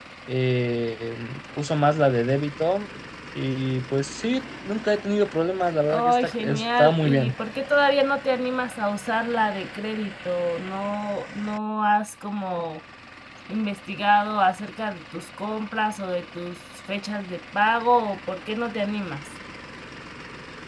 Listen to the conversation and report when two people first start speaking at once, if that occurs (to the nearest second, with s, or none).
6 s